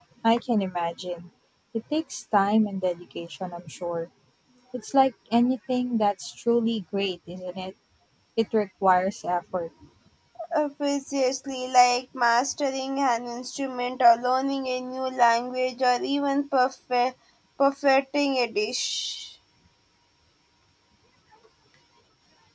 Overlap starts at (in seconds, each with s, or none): none